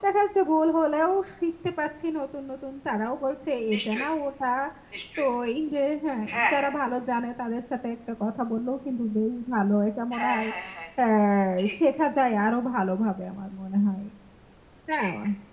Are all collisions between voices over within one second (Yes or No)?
Yes